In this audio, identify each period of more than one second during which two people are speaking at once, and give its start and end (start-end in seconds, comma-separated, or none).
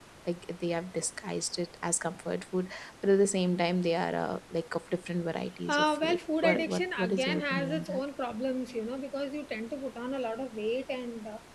5.7-8.0